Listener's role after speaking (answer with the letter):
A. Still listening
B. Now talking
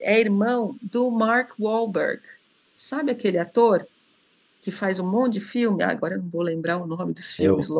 B